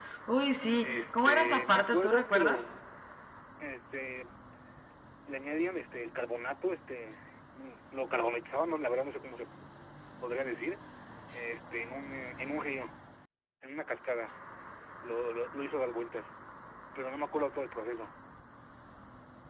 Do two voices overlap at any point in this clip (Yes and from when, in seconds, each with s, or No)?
Yes, from 0.8 s